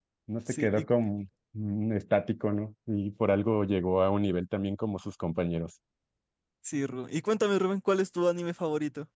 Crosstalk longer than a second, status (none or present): none